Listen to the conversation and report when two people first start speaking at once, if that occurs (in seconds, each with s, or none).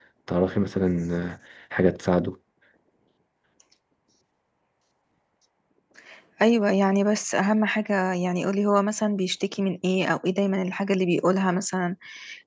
none